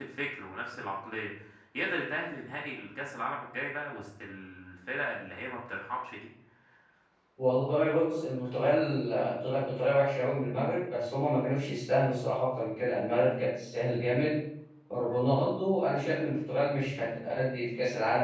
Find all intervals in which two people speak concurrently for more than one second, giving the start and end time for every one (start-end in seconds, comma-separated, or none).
none